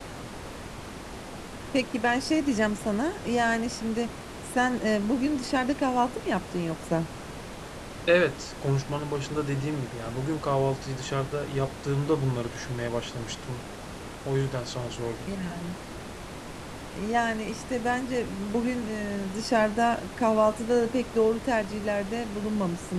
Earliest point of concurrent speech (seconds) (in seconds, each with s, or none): none